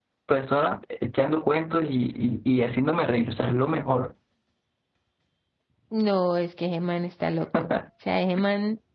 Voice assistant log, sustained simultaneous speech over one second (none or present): none